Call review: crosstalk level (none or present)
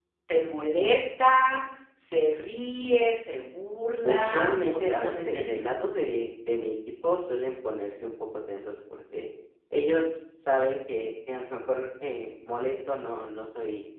present